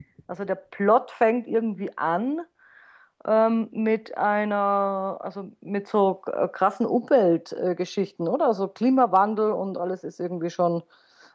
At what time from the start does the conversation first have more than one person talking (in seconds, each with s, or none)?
none